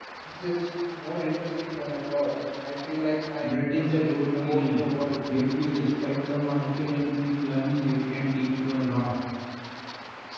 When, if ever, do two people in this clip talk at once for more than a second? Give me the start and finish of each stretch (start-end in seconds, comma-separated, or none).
3.4-4.9